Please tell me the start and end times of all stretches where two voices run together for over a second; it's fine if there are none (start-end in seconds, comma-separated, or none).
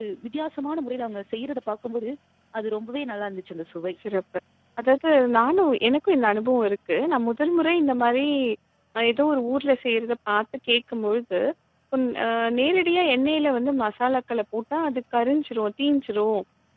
none